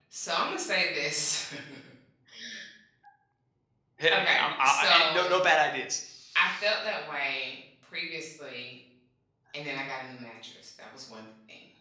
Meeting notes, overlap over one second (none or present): present